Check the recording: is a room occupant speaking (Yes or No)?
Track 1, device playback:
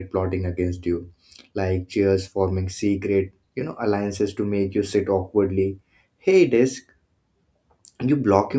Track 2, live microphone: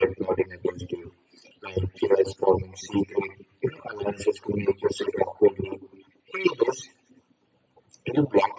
No